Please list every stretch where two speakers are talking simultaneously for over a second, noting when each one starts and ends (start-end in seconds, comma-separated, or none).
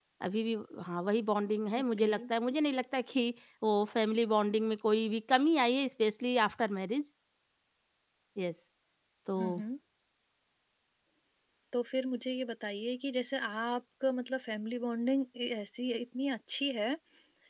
none